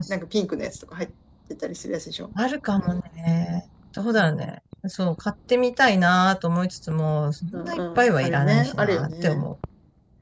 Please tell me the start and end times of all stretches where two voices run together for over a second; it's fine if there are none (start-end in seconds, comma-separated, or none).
7.5-9.5